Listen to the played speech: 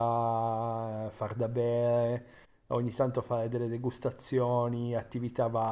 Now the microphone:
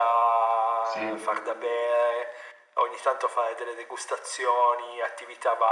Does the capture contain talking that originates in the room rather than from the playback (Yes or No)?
Yes